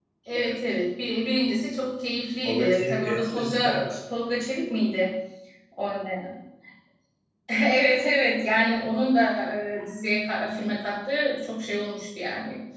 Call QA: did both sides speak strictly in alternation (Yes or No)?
No